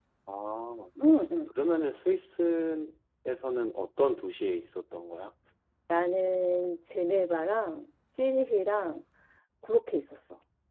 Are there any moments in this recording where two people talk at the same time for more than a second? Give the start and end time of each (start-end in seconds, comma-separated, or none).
none